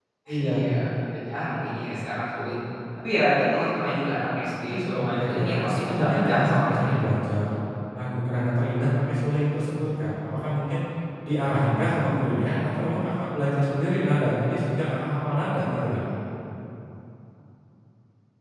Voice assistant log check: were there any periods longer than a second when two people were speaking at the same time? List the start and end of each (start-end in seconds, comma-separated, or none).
4.9-7.0